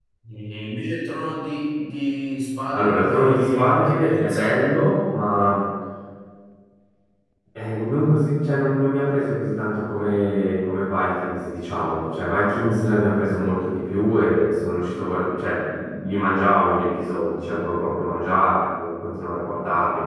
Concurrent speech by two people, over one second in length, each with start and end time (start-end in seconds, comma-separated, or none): 2.7-4.5